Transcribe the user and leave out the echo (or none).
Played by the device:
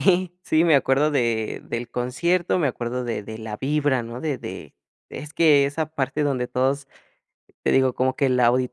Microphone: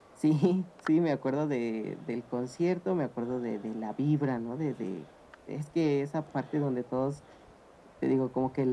none